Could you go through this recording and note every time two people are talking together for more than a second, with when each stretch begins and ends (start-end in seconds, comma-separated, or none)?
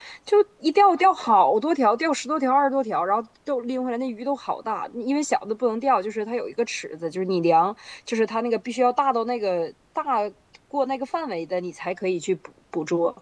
none